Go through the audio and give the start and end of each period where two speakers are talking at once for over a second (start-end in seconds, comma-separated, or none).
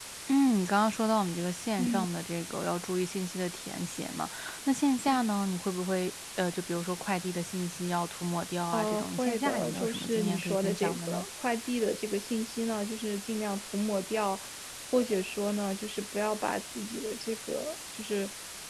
8.7-11.2